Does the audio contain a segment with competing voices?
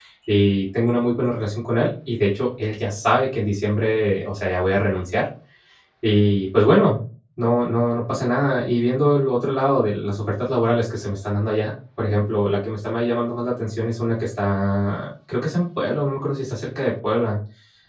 No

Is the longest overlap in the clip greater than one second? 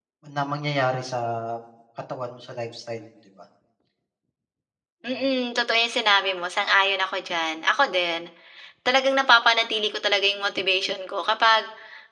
No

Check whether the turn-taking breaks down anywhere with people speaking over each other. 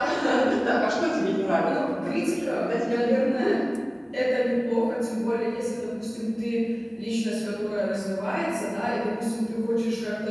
Yes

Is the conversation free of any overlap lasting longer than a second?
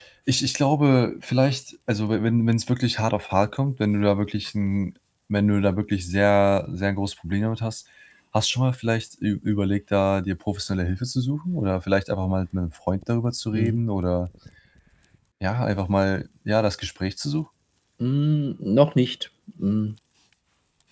Yes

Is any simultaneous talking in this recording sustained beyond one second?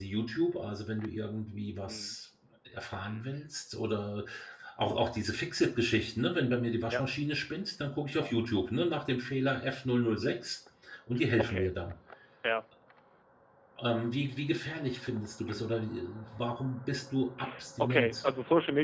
No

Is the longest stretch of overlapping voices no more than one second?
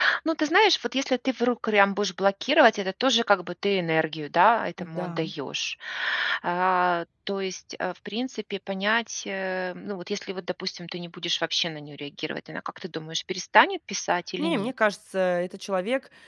Yes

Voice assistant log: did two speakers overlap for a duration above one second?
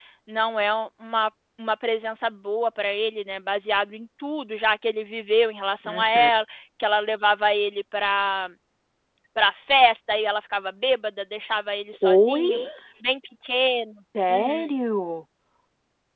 No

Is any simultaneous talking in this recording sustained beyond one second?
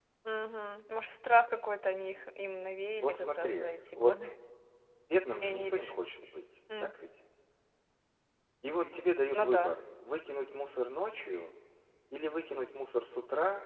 Yes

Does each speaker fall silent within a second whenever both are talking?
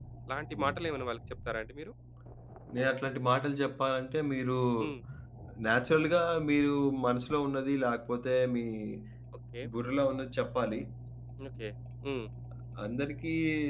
Yes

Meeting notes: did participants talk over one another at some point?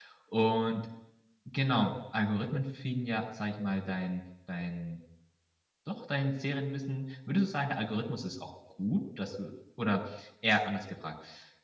No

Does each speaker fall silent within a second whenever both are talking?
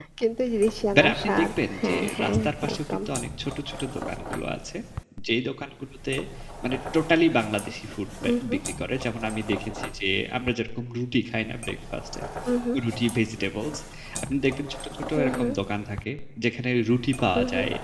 No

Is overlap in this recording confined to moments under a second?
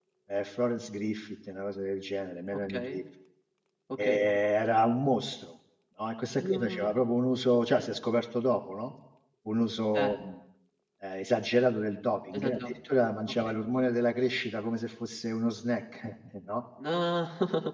Yes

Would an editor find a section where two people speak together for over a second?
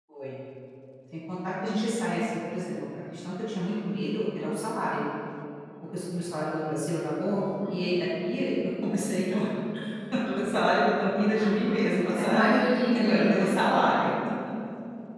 Yes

